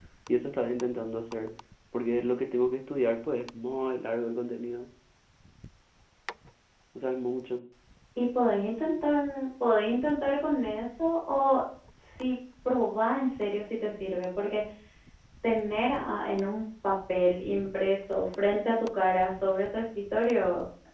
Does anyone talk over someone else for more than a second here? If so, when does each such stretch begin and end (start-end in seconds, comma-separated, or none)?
none